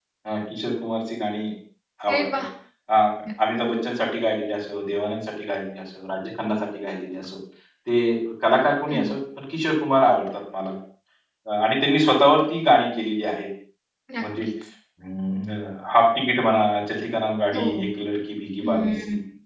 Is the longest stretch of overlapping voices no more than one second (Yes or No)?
Yes